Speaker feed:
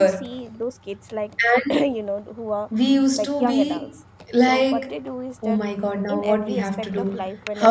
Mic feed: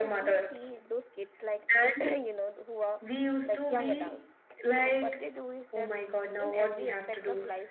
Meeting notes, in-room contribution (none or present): none